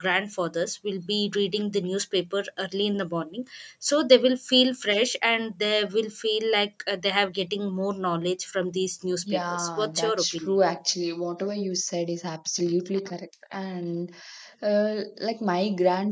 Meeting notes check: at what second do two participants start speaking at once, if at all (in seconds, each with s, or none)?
9.2 s